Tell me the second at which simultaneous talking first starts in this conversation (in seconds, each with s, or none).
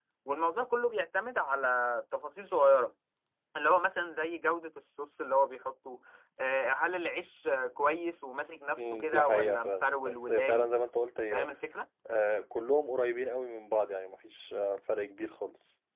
8.8 s